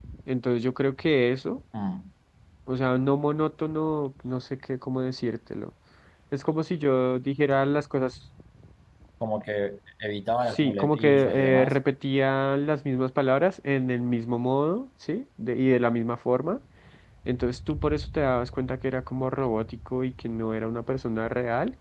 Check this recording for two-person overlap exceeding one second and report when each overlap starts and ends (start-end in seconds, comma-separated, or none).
10.5-11.8